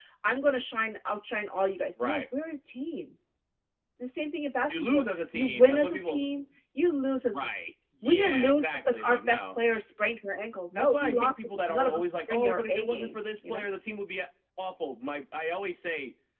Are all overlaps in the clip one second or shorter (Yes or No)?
No